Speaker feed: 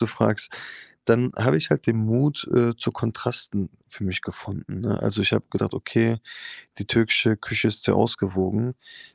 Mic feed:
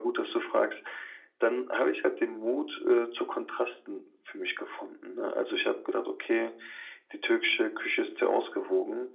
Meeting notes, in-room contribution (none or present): none